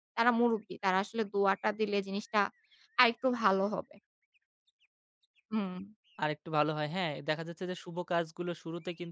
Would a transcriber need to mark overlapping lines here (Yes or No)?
No